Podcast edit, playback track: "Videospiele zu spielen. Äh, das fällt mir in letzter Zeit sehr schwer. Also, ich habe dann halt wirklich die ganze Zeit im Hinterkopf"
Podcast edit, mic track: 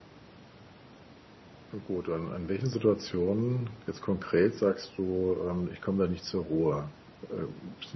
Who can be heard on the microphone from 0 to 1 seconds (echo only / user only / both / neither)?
neither